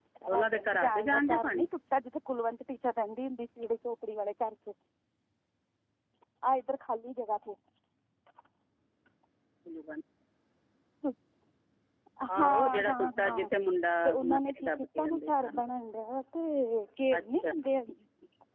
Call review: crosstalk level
present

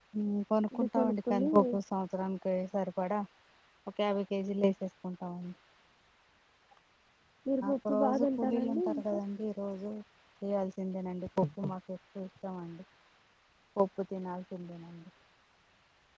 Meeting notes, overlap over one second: present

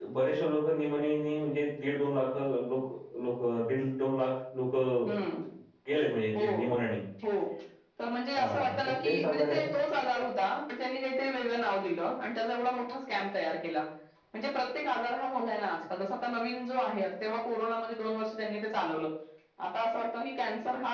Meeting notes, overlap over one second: present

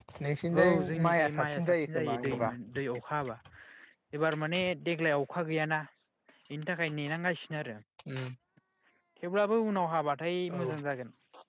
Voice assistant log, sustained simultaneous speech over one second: present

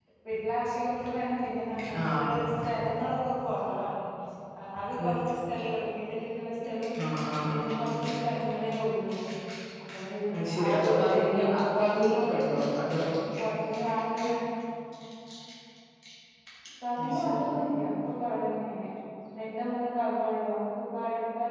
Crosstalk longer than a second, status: present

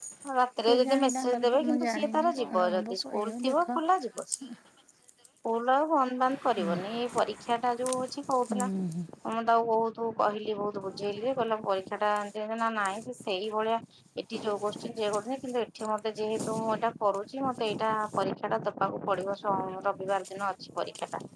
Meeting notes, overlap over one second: present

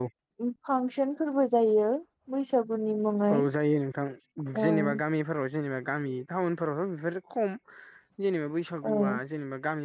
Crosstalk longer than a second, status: none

